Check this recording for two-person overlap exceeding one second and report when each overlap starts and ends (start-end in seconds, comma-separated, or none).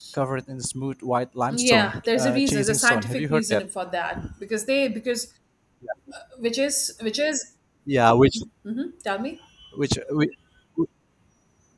1.5-3.6